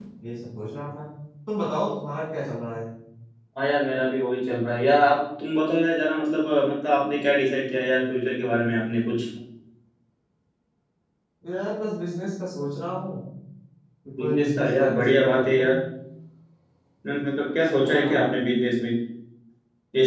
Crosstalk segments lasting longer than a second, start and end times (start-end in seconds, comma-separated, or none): 14.2-15.8